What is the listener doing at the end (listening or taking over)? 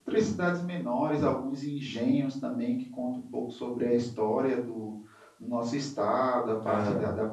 listening